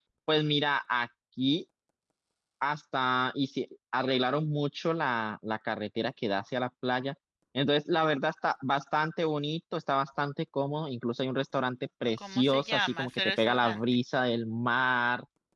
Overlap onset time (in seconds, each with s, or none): 12.2 s